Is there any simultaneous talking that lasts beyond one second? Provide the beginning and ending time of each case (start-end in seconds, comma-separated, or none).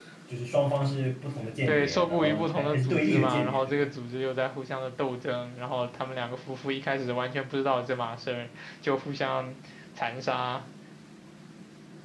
1.6-3.9